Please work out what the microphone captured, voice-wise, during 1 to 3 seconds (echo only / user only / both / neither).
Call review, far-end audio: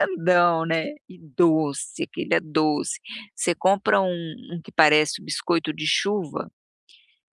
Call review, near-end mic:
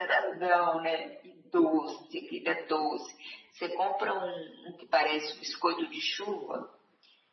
echo only